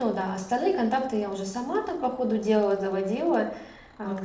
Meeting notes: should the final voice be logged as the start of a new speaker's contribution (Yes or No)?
Yes